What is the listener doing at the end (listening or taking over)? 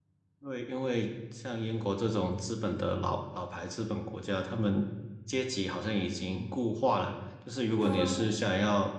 listening